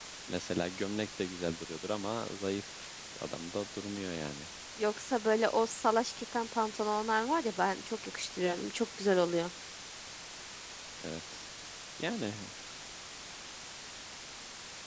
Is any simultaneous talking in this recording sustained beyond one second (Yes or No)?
No